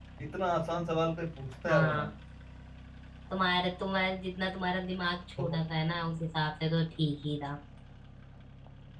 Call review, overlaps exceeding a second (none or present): none